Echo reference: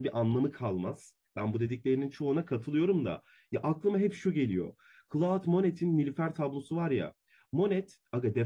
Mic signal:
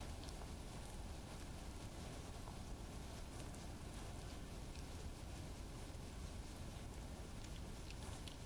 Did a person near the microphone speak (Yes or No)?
No